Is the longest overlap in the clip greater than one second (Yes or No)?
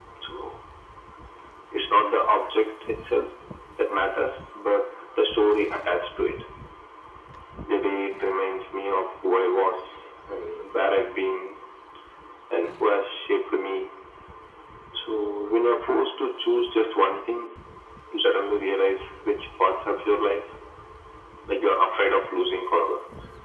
No